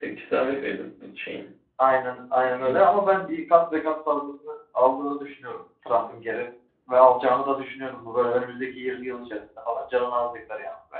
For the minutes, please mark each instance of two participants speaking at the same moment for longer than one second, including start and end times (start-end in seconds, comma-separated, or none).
none